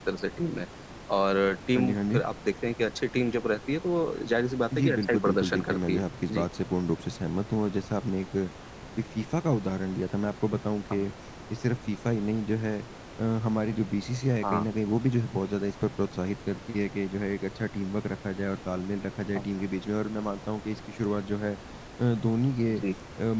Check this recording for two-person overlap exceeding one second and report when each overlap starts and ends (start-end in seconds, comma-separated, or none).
4.8-6.5